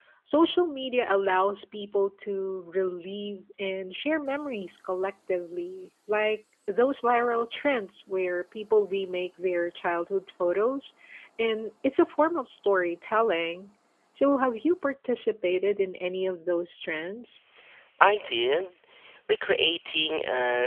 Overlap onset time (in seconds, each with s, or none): none